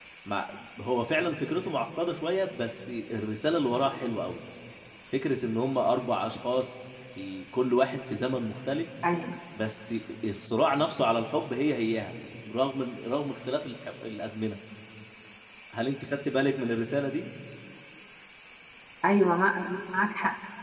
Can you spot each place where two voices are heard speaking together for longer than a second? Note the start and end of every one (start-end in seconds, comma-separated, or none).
none